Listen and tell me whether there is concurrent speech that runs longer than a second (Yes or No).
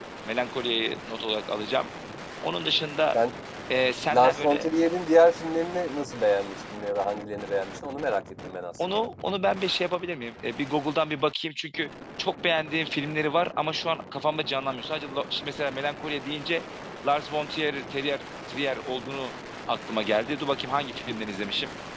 No